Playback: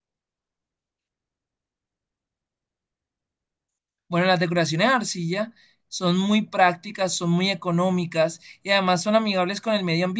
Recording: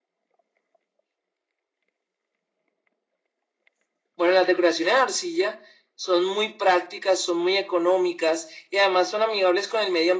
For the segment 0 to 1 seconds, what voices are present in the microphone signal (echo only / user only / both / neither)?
neither